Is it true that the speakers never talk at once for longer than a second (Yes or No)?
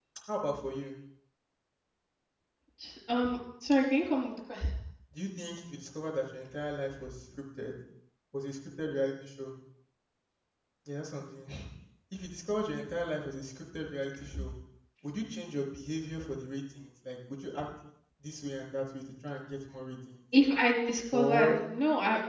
Yes